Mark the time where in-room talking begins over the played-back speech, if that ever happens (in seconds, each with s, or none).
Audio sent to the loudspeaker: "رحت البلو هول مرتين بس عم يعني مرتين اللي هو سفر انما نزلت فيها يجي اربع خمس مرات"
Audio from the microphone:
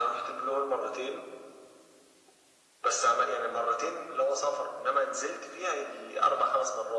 none